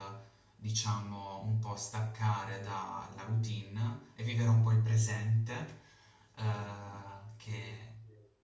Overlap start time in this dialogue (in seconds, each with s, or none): none